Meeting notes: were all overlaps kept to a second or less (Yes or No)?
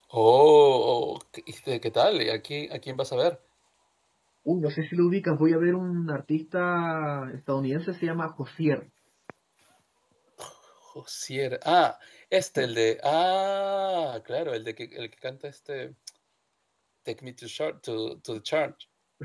Yes